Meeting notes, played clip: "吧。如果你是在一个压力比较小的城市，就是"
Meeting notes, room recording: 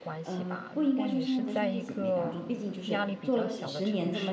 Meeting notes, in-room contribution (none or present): present